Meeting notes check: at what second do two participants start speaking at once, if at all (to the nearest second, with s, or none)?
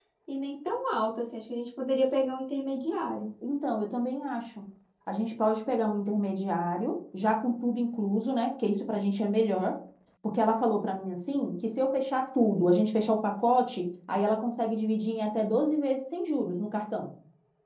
none